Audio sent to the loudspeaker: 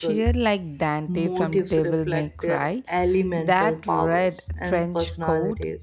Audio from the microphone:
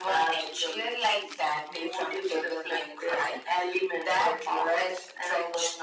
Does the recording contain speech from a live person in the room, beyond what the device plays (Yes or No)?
No